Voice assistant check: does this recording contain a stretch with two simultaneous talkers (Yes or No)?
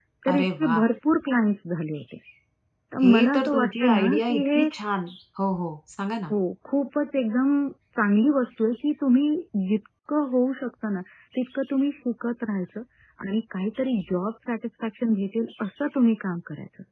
Yes